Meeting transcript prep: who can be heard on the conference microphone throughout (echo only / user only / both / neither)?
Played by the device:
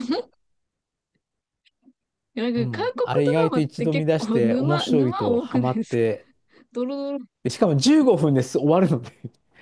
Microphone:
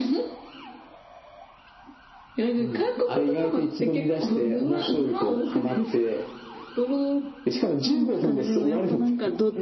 both